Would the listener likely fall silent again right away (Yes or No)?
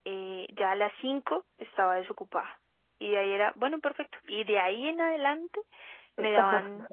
Yes